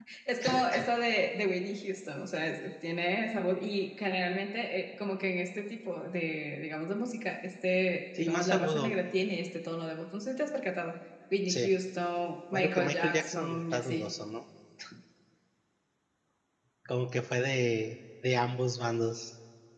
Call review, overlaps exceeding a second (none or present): present